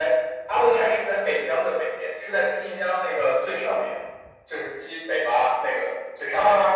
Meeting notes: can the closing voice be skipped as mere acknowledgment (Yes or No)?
Yes